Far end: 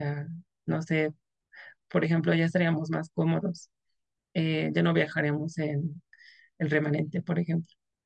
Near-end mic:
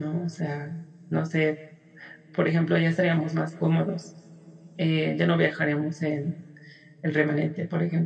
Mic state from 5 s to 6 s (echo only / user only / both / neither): echo only